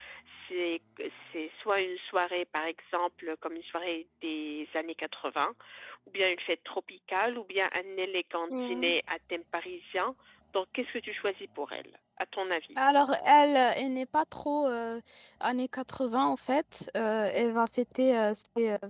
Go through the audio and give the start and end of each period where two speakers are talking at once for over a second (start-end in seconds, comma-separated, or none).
none